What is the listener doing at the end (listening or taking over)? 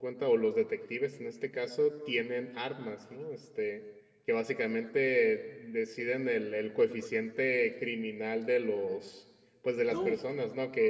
listening